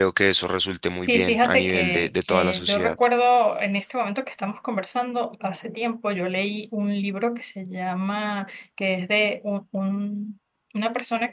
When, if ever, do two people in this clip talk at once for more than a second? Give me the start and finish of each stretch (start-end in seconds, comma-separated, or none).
1.1-3.0